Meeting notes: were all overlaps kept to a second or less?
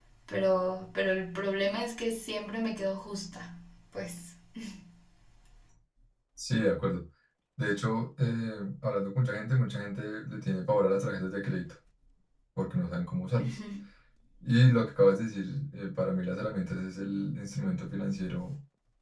Yes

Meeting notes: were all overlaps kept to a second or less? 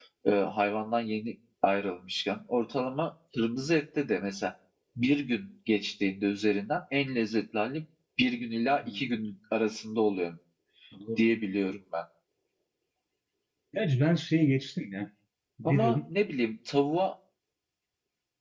Yes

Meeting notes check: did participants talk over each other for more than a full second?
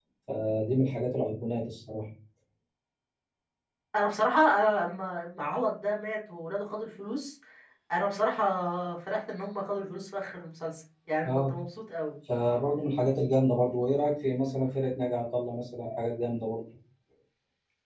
No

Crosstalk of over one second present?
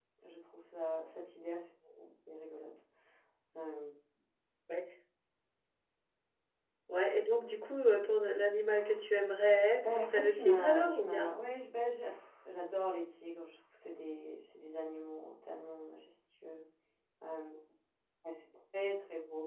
Yes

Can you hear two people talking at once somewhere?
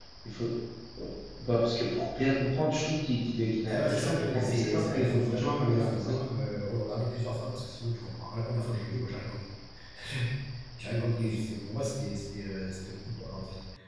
Yes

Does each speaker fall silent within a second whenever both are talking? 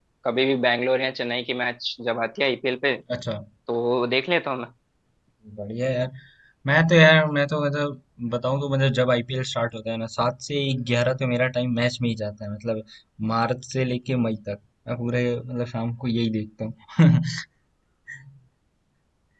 Yes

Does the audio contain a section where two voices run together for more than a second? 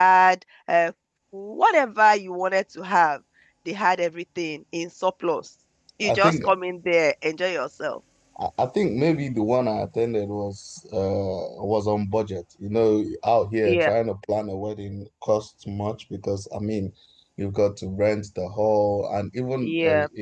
No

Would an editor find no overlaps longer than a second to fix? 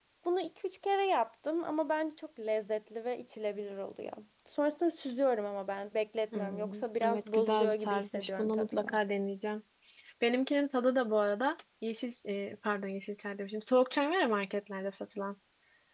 No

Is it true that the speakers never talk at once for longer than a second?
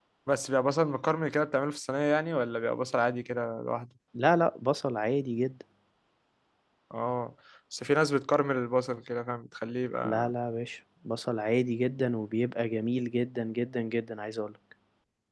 Yes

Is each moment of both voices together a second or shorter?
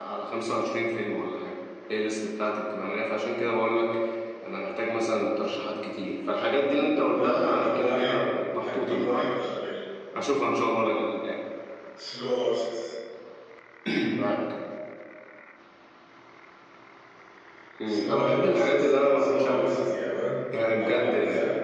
No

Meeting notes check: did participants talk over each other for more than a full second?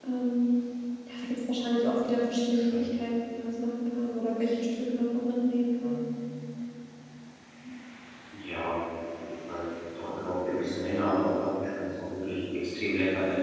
No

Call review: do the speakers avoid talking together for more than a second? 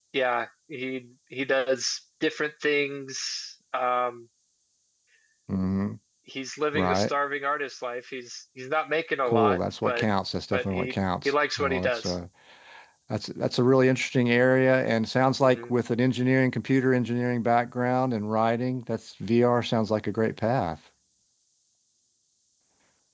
No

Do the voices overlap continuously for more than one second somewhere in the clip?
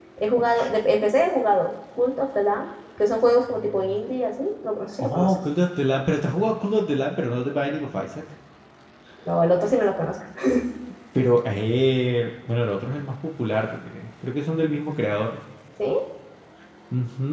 No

